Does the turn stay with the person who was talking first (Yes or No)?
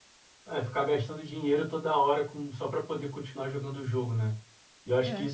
Yes